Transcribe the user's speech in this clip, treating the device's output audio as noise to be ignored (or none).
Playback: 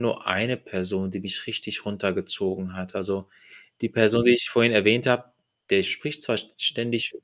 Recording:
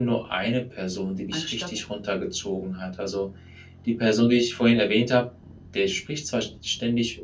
anstatt